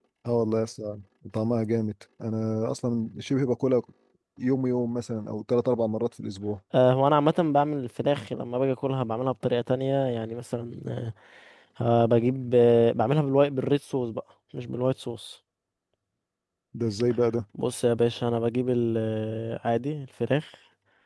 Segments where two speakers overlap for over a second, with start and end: none

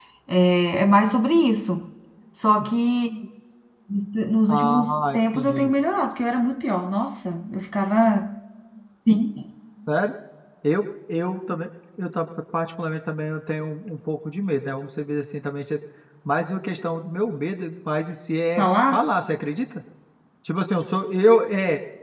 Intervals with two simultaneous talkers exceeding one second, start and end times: 4.5-5.7

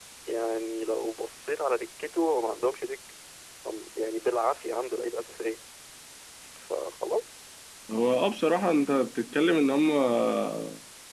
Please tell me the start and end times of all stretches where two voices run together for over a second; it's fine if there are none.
none

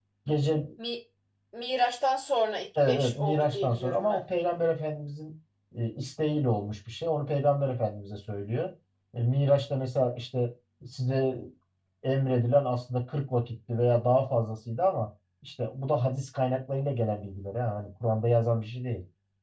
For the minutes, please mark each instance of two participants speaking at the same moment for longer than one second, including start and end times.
2.9-4.2

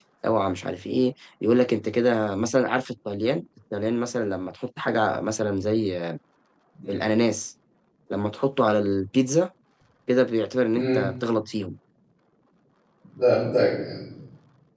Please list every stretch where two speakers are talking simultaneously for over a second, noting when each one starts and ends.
none

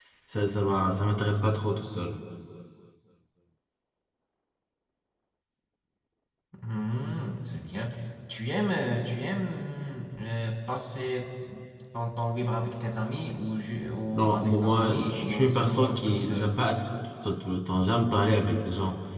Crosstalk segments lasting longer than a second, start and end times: 14.1-16.5

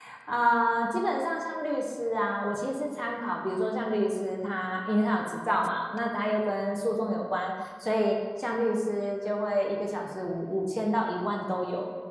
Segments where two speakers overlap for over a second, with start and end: none

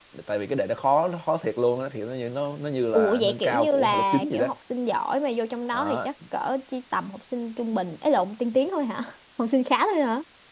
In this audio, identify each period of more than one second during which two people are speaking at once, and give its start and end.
3.0-4.5

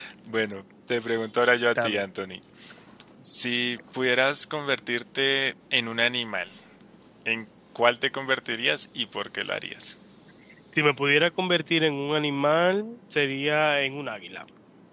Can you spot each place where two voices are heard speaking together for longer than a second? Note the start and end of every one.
none

